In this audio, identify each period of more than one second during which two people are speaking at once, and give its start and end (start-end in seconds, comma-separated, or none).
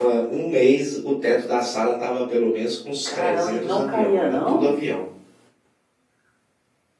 3.0-4.7